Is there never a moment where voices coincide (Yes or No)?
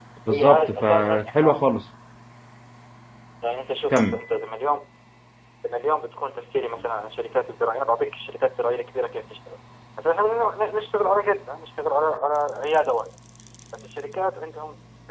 No